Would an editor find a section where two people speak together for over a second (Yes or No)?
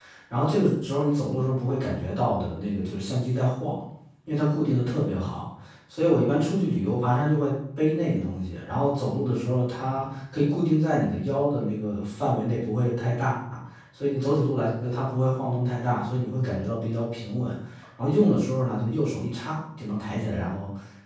No